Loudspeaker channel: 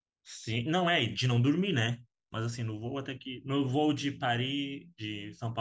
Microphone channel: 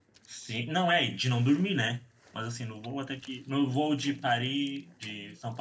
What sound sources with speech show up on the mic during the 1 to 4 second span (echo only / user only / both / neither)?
echo only